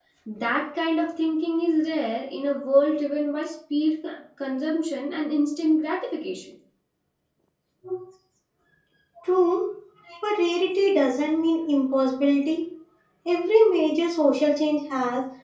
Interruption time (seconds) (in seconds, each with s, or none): none